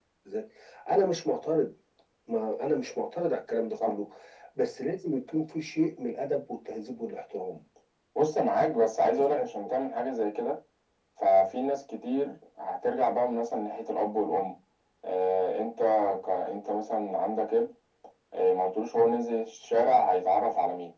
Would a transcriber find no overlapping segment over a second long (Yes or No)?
Yes